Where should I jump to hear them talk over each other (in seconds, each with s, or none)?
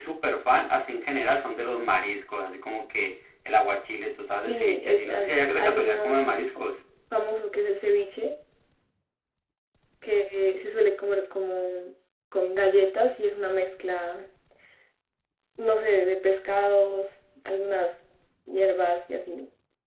4.5 s